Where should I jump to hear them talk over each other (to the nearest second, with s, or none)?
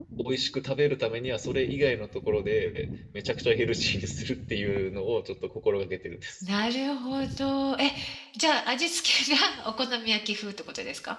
none